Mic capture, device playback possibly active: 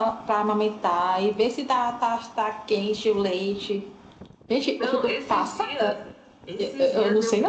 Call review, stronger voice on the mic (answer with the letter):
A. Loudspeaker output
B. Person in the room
A